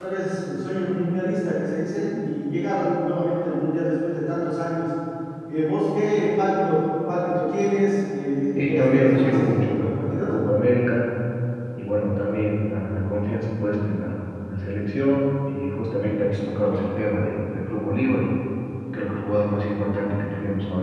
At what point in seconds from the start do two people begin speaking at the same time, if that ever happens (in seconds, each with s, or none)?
8.6 s